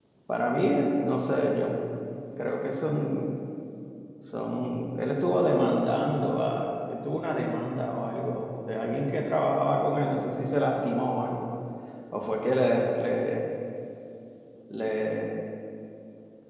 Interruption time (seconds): none

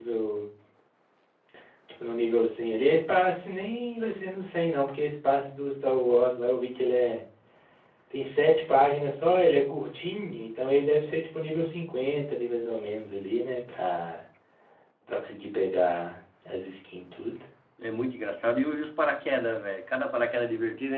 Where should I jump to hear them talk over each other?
none

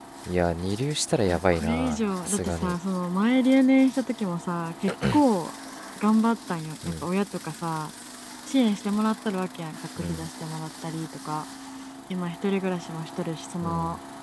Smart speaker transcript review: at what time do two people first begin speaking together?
1 s

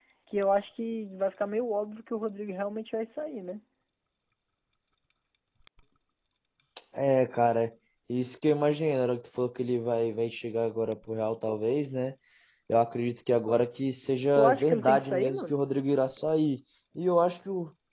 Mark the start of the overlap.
14 s

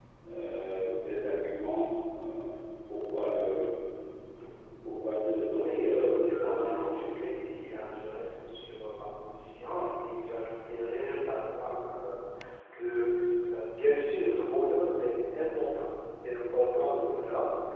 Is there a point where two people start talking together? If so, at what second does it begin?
6 s

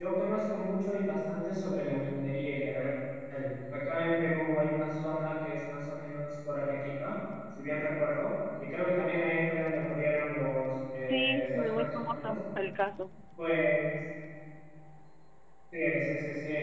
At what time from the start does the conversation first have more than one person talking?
11 s

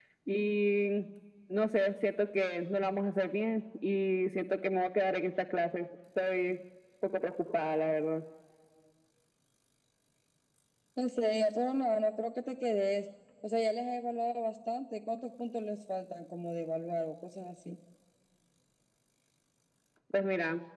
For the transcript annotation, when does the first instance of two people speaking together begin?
none

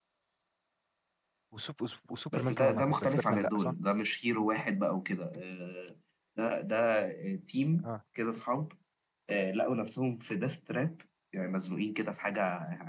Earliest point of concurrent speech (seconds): 2 s

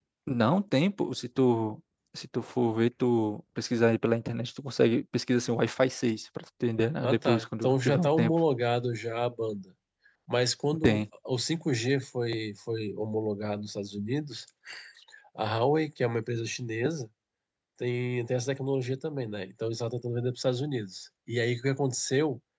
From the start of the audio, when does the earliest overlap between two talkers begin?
7 s

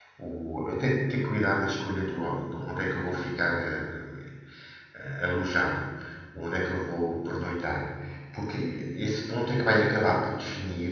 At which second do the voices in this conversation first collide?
none

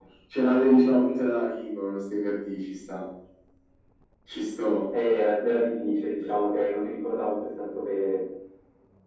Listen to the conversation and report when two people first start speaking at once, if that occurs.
none

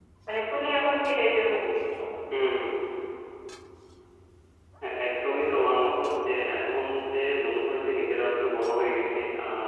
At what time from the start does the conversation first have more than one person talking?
none

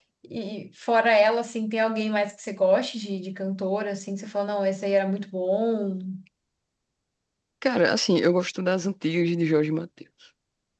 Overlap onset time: none

